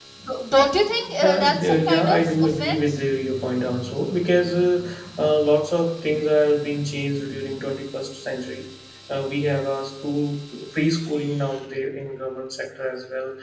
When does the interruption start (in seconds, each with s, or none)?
1.2 s